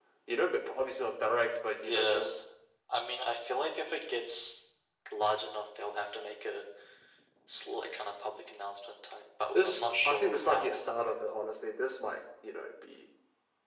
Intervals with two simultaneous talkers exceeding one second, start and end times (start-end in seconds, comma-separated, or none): 9.5-10.8